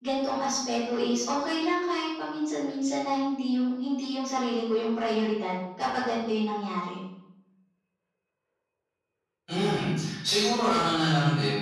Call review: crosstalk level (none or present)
none